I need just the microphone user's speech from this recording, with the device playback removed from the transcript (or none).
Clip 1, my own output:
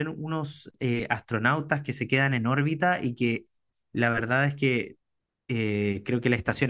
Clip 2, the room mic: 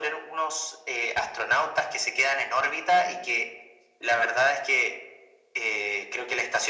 none